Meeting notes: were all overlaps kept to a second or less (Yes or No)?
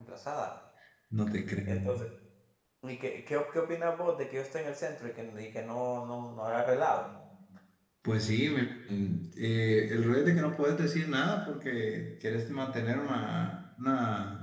Yes